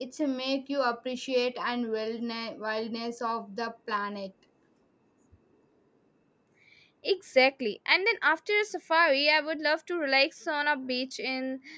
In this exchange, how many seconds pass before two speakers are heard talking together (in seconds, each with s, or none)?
none